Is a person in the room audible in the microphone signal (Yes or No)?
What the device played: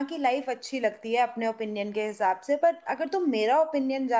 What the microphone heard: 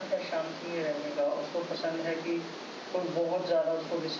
Yes